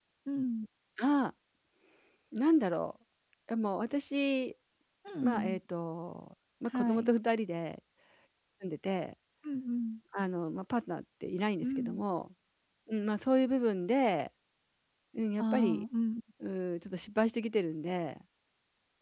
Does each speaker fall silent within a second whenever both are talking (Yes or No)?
Yes